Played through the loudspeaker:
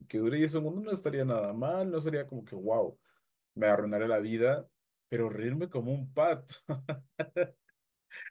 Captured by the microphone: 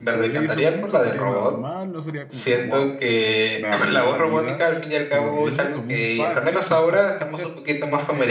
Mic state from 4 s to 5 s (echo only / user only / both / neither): both